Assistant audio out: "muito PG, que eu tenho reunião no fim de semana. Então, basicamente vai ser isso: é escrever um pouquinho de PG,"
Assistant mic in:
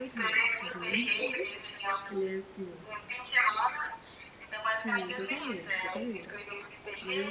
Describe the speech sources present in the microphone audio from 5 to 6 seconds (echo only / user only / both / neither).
both